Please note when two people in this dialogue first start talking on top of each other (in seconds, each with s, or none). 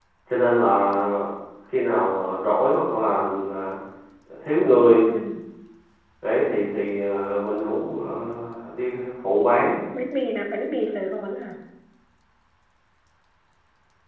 none